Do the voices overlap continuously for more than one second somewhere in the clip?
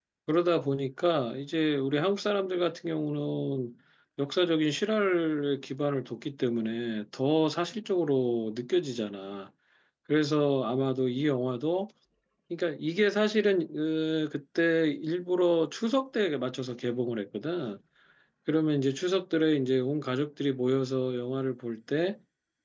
No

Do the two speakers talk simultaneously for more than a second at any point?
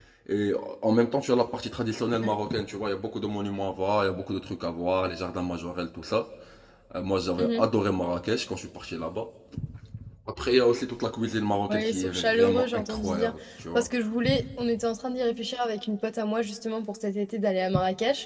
Yes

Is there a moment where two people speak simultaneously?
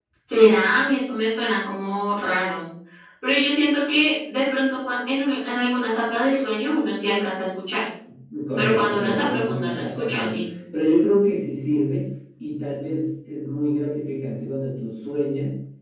Yes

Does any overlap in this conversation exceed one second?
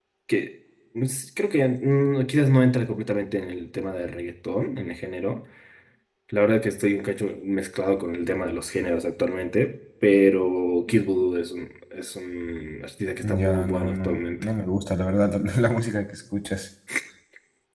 Yes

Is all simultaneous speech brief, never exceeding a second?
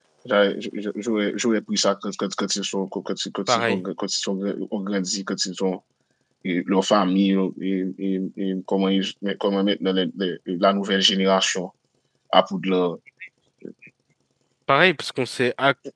Yes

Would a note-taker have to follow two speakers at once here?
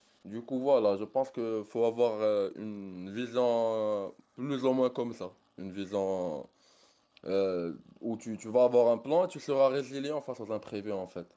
No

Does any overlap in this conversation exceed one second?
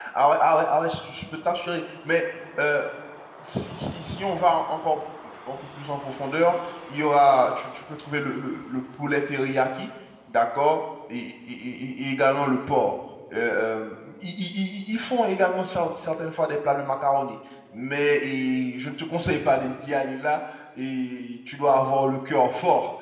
No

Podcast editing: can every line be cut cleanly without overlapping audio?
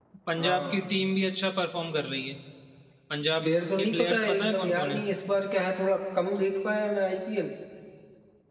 No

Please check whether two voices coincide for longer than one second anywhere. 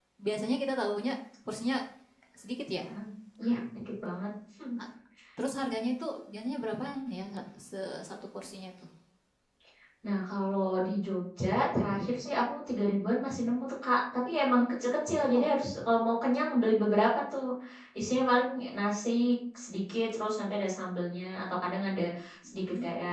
No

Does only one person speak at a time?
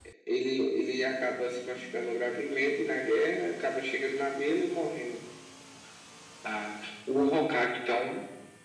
Yes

